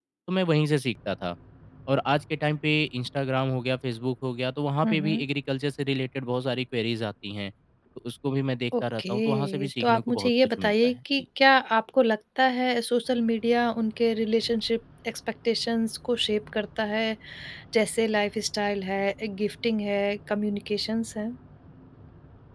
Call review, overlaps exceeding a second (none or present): present